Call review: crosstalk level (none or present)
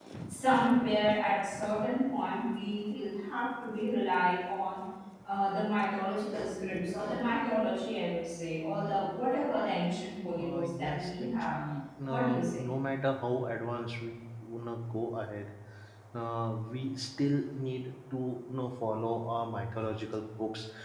present